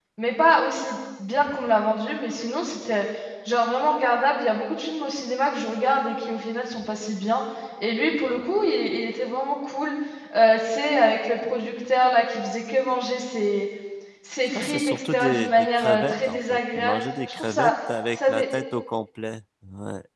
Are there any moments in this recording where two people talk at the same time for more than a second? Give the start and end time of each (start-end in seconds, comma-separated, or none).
14.6-17.7